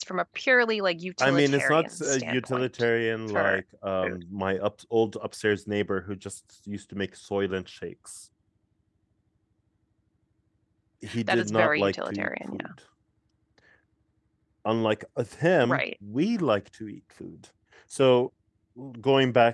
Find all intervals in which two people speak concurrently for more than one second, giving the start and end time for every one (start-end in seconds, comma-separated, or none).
1.2-2.7, 11.3-12.7